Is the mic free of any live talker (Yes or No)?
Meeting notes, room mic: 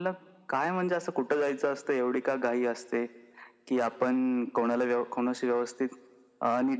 Yes